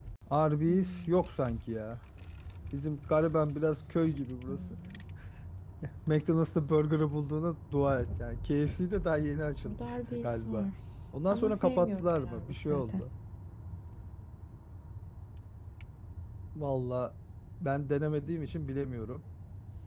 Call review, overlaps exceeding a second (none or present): present